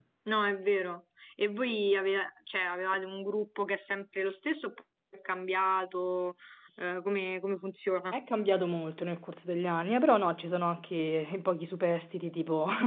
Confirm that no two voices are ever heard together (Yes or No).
Yes